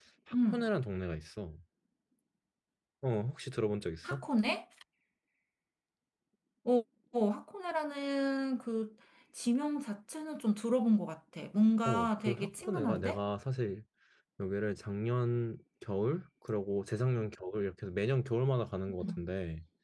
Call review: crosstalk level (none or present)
present